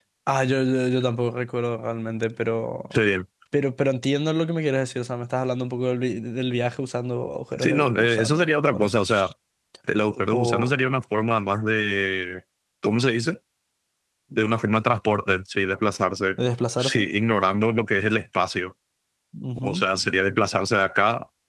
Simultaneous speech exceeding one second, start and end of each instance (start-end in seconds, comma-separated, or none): 7.6-8.9